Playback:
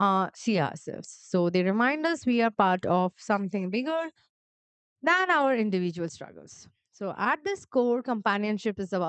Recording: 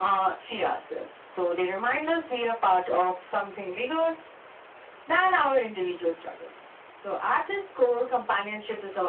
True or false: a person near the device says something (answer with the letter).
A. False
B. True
A